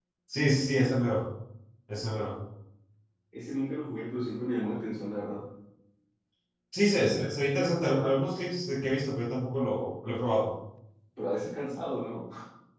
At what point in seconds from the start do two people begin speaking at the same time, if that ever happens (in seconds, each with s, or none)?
none